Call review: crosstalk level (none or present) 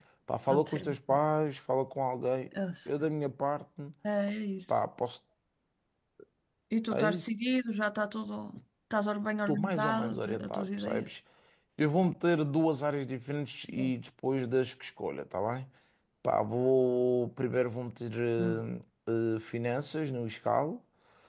present